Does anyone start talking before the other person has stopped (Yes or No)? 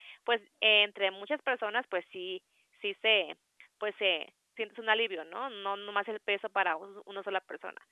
No